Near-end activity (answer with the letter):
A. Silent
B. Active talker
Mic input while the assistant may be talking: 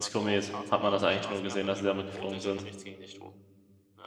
B